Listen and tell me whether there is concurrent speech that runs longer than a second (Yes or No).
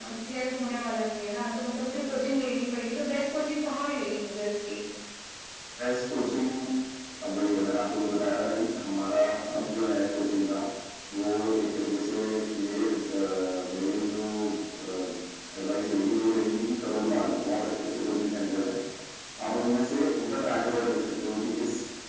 No